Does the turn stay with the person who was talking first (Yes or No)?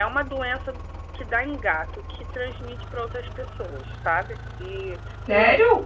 No